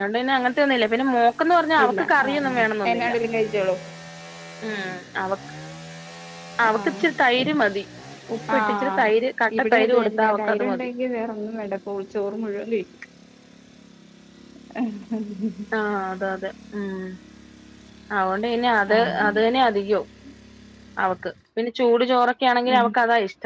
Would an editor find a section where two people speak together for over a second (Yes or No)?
Yes